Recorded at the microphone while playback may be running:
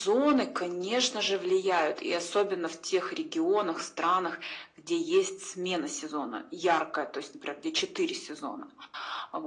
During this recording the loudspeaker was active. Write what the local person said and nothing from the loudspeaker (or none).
none